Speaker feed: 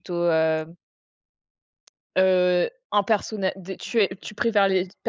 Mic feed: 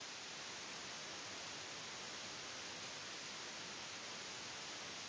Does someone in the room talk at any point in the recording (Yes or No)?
No